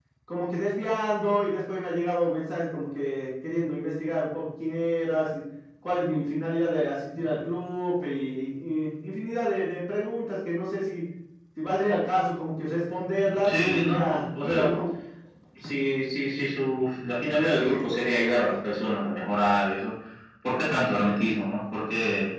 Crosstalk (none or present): present